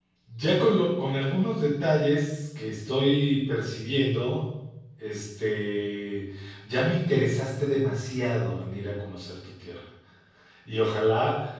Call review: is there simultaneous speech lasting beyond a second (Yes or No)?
No